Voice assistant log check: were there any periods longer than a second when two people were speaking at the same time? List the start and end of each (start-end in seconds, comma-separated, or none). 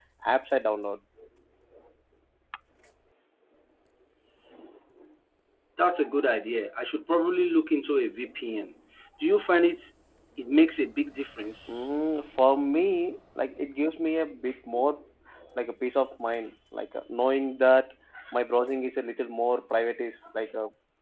none